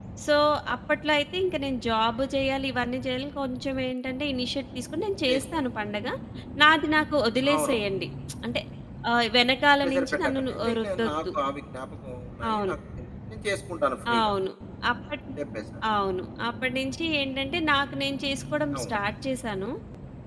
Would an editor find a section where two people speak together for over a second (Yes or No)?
Yes